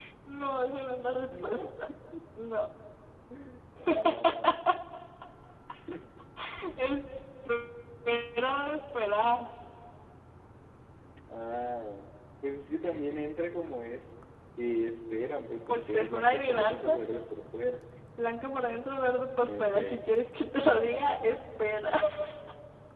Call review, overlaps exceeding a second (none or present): present